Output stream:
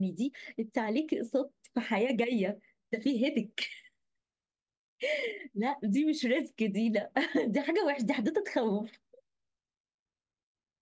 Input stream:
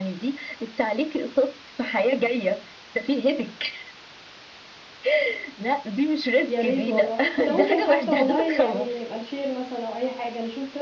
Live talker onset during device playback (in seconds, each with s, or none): 6.4 s